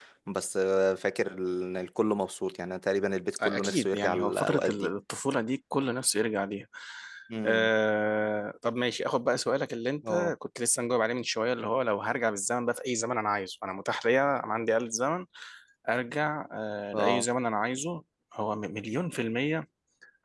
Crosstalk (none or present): present